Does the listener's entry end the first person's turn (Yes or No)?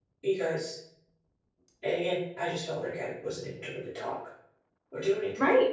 Yes